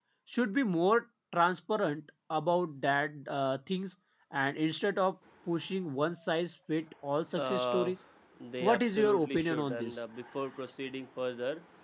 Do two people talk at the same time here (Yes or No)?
Yes